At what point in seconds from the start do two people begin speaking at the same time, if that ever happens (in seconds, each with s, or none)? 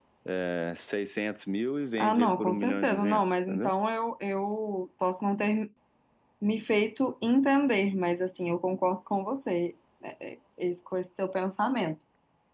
2.0 s